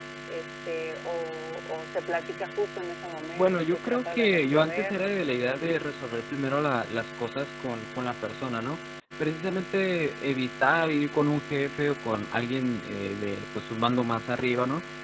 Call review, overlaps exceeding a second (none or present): present